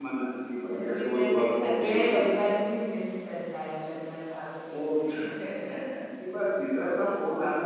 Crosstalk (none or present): present